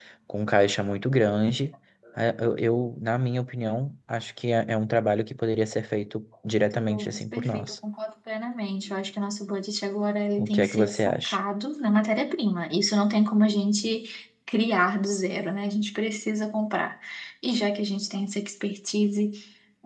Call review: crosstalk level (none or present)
present